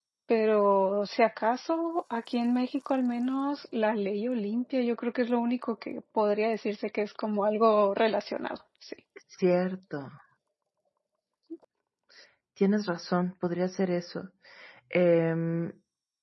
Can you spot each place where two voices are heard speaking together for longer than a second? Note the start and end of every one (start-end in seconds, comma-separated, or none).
none